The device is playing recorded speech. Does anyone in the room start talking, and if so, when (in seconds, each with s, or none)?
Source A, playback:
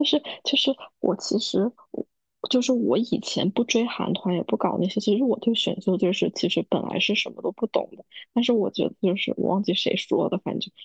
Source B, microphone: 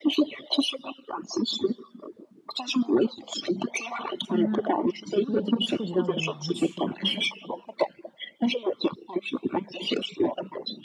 4.2 s